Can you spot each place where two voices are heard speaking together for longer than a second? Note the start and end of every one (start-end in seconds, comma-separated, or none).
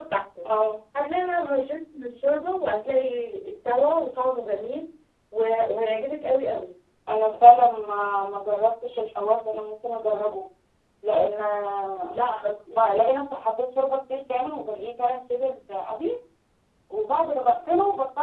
none